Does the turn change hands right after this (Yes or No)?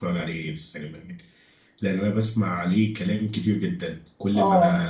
No